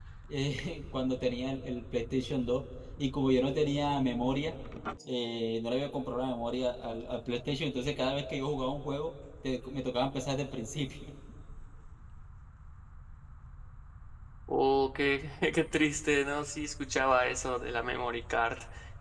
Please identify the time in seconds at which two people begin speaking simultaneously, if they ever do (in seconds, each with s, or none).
none